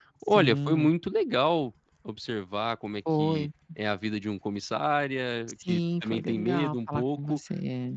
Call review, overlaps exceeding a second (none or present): present